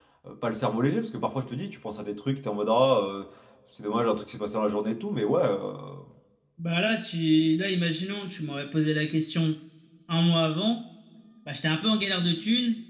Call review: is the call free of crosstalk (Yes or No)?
Yes